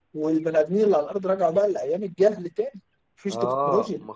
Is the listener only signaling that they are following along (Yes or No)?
No